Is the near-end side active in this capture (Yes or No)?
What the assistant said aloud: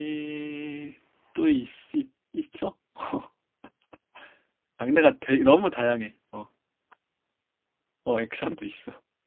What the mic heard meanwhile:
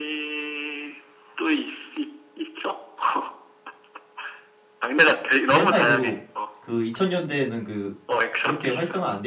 Yes